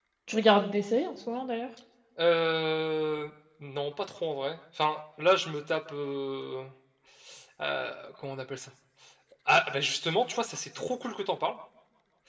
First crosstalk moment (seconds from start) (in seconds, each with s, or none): none